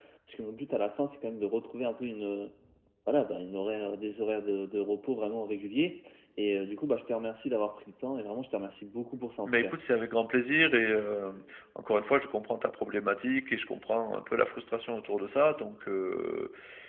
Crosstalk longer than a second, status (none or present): none